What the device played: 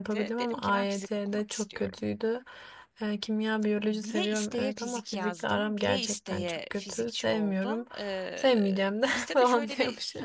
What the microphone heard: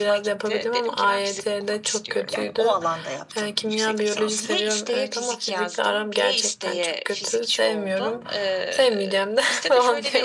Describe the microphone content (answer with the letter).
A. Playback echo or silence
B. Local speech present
B